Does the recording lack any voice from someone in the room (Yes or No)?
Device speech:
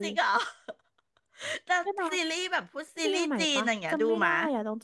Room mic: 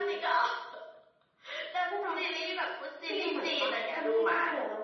Yes